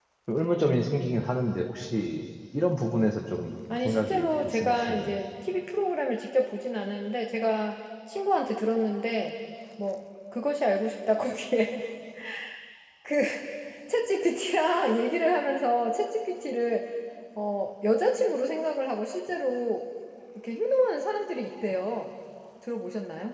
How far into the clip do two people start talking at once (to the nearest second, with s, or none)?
4 s